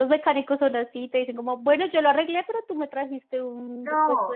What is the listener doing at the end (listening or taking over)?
taking over